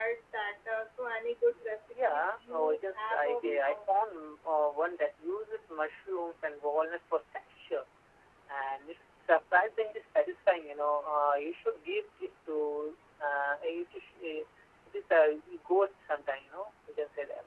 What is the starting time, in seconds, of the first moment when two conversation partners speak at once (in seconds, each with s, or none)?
1.9 s